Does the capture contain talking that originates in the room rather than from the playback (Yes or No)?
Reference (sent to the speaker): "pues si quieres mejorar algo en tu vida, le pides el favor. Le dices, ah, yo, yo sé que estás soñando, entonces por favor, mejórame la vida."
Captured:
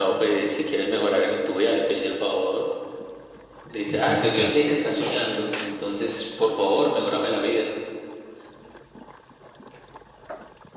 Yes